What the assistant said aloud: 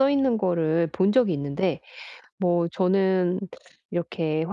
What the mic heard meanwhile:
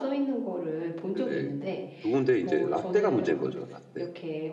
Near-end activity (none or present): present